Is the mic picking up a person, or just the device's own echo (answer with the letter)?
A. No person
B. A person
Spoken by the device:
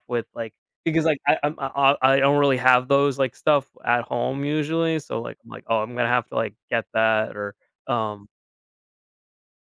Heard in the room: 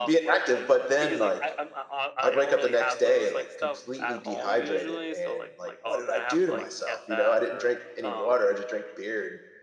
B